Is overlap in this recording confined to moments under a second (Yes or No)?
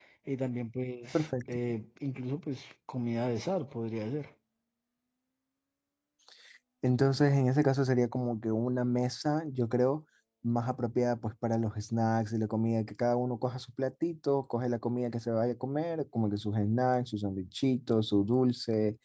Yes